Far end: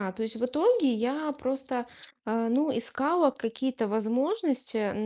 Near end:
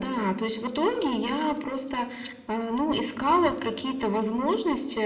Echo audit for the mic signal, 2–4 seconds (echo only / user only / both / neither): echo only